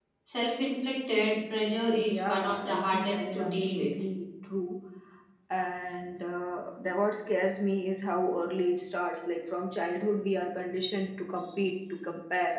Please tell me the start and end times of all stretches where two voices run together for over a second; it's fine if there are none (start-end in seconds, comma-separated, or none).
1.9-3.9